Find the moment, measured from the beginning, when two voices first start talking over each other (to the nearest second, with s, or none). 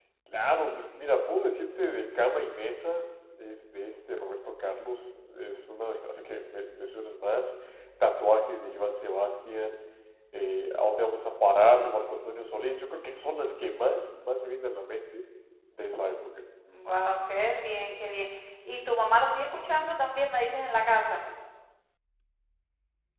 none